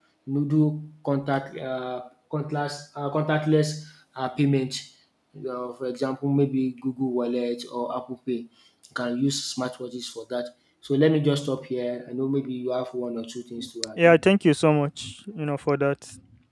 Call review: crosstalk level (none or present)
none